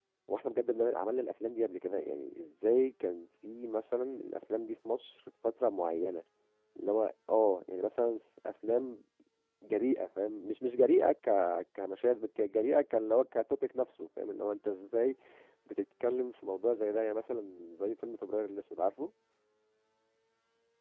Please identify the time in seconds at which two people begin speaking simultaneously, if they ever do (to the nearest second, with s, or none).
none